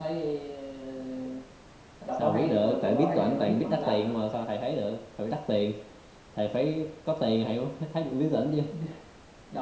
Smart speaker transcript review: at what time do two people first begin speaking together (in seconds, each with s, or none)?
2.2 s